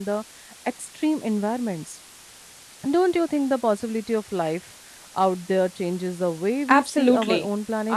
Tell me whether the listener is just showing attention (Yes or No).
No